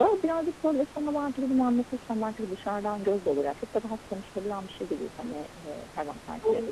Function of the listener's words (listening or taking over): listening